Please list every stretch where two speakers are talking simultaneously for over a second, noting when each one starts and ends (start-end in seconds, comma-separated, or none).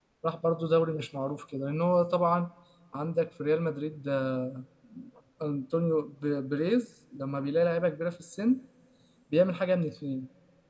none